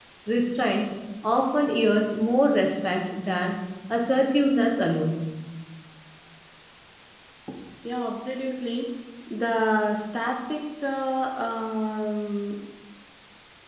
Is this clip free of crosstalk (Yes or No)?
Yes